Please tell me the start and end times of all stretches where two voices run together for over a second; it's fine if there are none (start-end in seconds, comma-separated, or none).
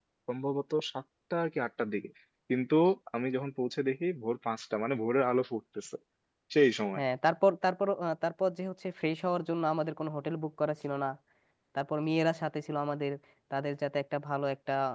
none